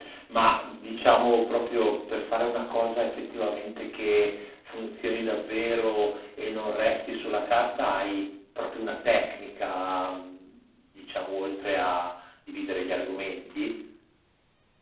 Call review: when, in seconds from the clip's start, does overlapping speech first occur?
none

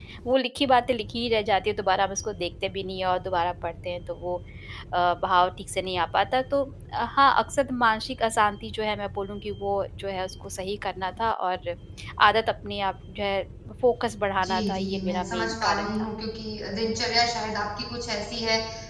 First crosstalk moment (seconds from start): 14.4 s

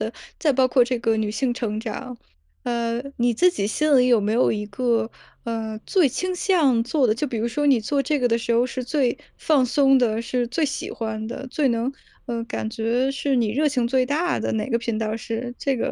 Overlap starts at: none

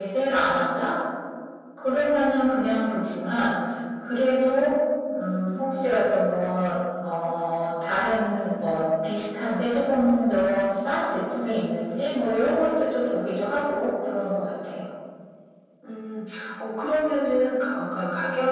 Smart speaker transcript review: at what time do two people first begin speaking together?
none

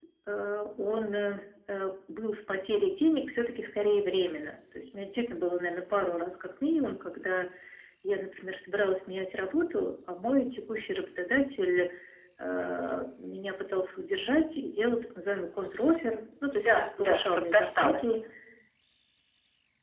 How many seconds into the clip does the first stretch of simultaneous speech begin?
16.5 s

